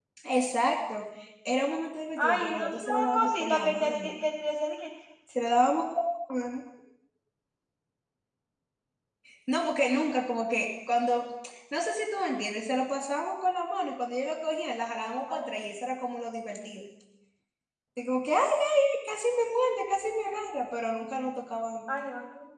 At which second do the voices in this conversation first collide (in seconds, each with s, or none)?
2.2 s